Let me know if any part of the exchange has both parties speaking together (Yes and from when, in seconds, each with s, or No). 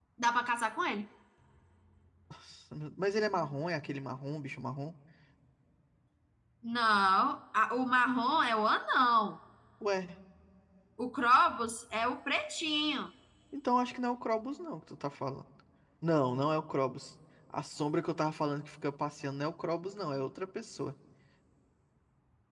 No